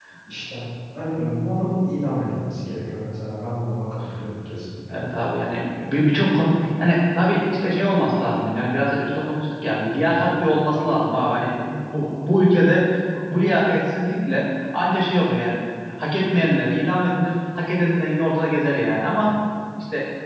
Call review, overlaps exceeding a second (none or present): none